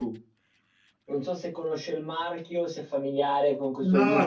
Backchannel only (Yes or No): No